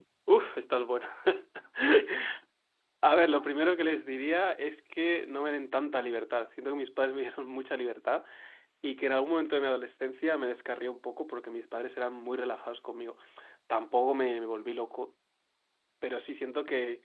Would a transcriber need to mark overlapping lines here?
No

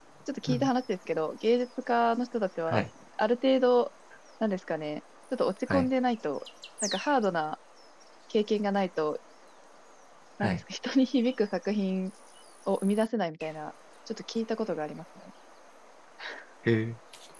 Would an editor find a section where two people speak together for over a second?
No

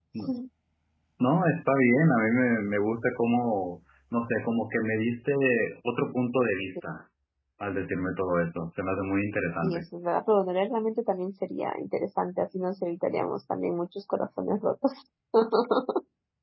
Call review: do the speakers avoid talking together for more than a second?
Yes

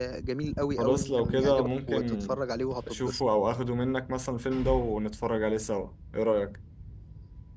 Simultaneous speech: Yes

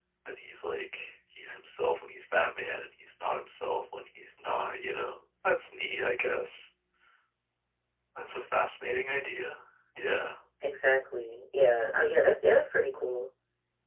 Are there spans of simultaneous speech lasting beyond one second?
No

